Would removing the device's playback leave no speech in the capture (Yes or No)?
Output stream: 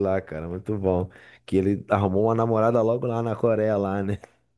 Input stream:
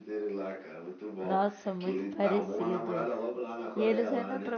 No